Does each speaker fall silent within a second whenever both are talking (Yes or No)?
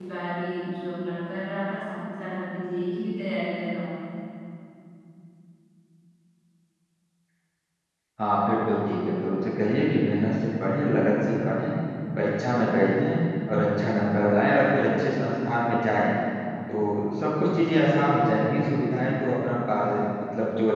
Yes